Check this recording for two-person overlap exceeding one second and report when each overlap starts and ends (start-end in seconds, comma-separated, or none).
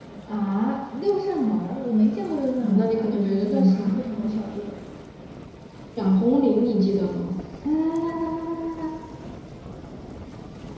2.6-4.0